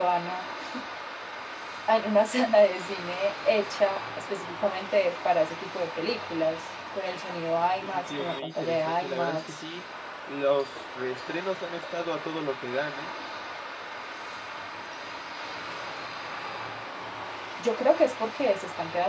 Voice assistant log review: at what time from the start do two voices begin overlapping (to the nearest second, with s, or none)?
8 s